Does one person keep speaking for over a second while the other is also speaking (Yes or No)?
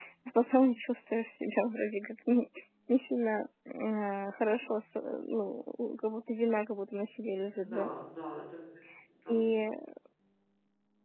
No